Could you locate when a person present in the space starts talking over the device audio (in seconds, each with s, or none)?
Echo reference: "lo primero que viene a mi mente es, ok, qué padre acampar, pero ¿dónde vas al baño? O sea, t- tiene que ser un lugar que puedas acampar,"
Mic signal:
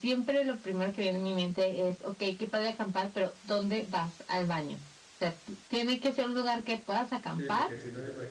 7.3 s